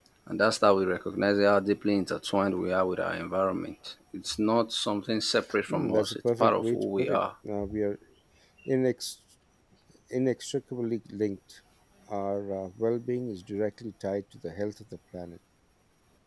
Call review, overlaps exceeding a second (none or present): present